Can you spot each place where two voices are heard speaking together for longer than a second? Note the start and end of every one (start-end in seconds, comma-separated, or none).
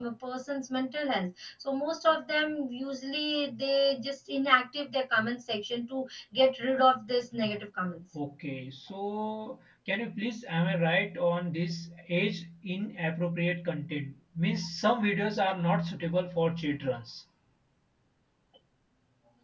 none